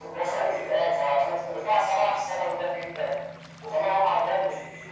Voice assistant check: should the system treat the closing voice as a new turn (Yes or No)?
No